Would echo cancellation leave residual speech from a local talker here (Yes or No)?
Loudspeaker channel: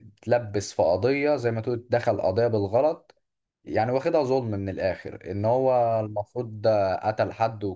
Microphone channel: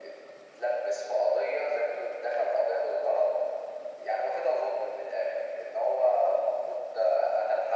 No